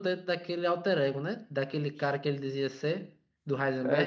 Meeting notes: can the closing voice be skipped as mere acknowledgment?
No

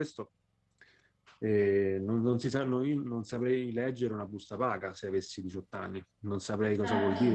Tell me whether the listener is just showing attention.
Yes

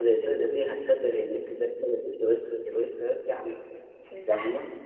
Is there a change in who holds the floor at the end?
Yes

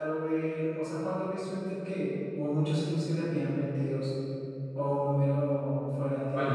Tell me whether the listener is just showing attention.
No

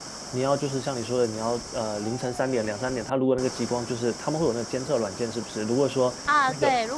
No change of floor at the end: No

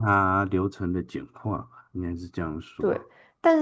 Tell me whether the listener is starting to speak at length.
Yes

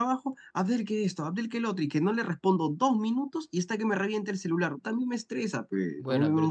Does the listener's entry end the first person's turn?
Yes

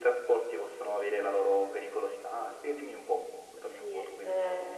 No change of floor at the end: No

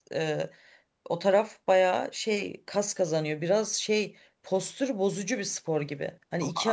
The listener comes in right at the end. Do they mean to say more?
No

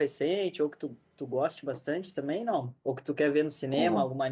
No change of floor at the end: Yes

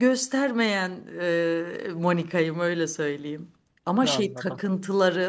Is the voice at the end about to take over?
No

